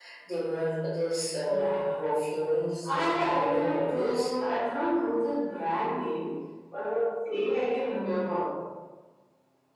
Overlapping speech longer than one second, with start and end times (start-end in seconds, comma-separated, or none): 2.8-4.2